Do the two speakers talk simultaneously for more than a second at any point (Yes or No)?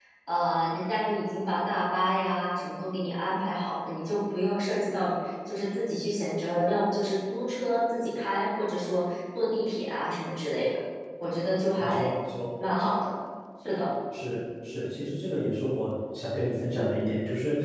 No